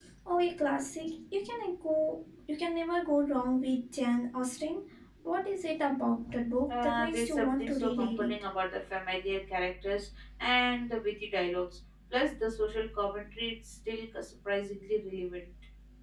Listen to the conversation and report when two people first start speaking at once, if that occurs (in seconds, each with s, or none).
6.7 s